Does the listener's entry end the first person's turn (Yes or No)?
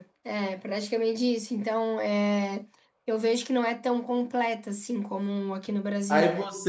Yes